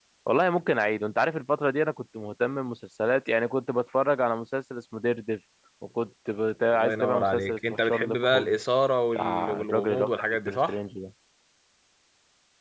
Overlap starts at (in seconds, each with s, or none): 6.7 s